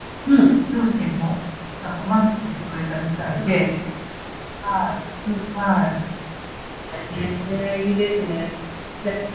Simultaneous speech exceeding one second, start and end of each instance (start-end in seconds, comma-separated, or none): none